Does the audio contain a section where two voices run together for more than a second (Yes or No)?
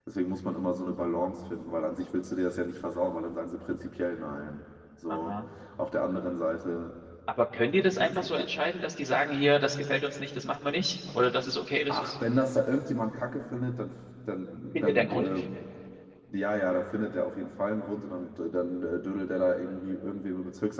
No